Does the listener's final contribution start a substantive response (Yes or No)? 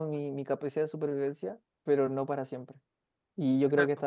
No